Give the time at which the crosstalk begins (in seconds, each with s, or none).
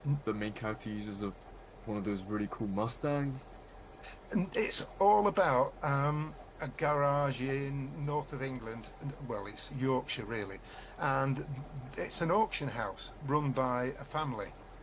none